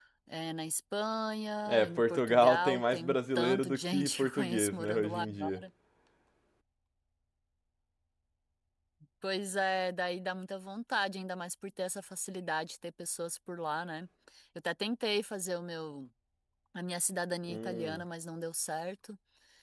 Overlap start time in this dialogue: 2 s

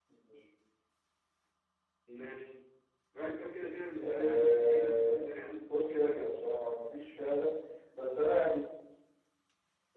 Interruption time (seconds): 4 s

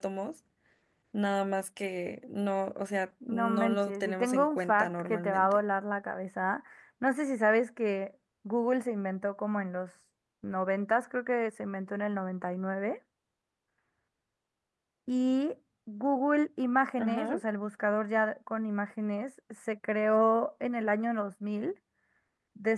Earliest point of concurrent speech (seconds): 3 s

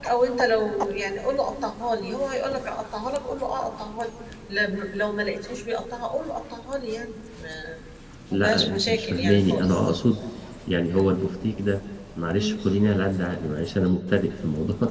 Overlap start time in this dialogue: 8 s

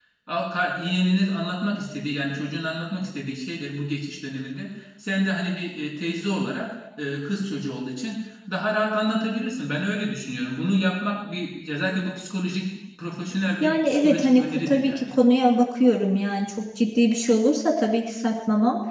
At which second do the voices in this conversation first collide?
14 s

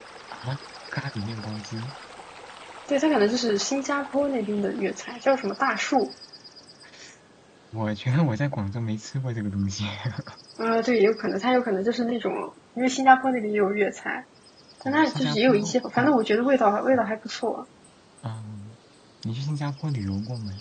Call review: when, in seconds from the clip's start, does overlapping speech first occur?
15 s

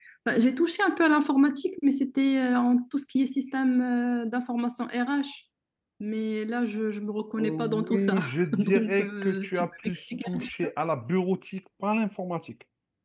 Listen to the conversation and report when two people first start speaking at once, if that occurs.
7 s

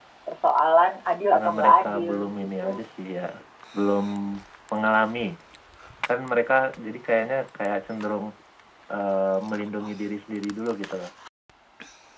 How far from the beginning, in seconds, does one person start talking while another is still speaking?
1 s

